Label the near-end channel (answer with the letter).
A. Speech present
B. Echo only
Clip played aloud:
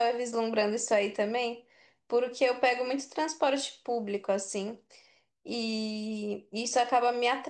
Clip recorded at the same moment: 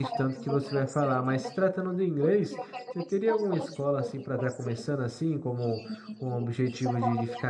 A